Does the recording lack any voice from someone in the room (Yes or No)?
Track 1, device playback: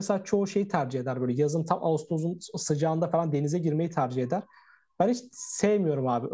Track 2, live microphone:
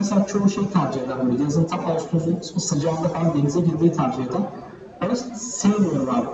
Yes